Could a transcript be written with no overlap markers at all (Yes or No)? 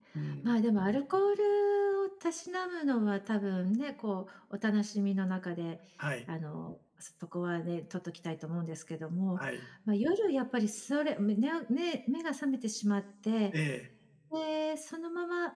Yes